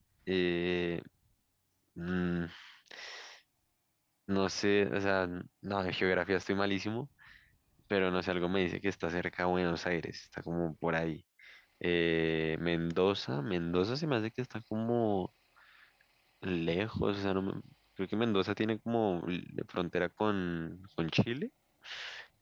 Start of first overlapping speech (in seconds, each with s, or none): none